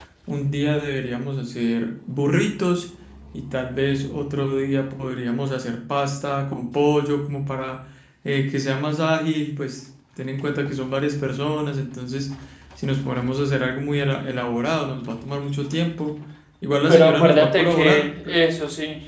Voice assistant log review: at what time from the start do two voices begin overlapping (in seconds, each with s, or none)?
16.9 s